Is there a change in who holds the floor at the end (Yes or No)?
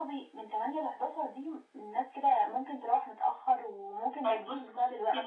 Yes